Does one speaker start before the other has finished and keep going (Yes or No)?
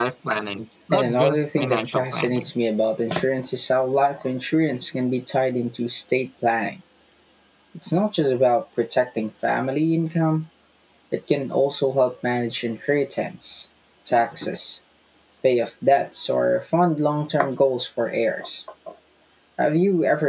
Yes